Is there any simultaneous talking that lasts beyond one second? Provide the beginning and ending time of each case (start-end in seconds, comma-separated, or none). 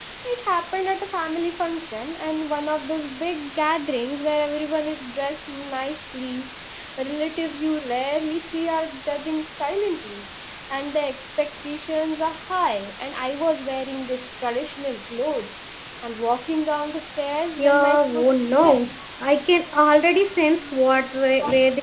17.6-18.8